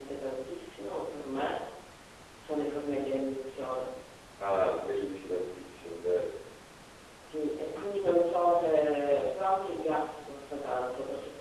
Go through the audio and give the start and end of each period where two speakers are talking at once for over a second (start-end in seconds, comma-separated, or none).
none